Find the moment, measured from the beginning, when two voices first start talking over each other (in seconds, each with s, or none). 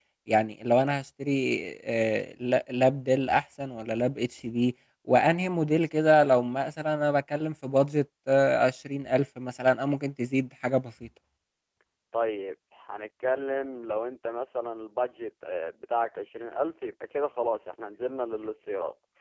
none